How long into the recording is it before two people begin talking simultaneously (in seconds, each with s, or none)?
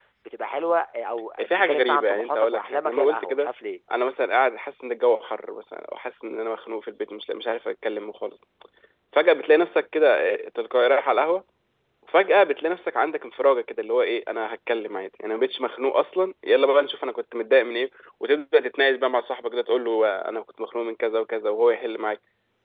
1.4 s